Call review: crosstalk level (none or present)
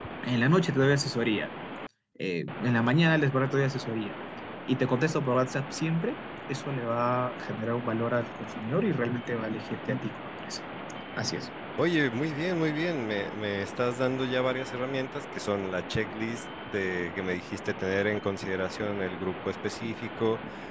none